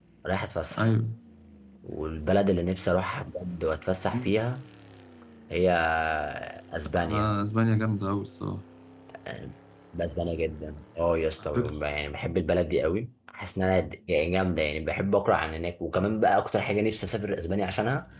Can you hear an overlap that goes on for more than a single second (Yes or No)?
No